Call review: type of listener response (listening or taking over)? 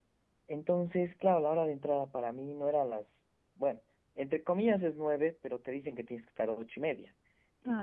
listening